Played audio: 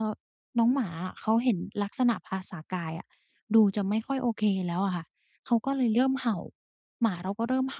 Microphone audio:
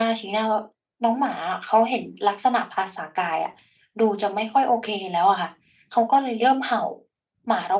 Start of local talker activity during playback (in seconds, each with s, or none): none